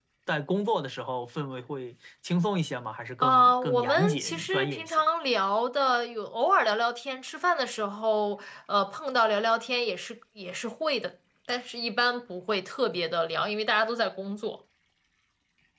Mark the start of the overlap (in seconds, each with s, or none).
3.2 s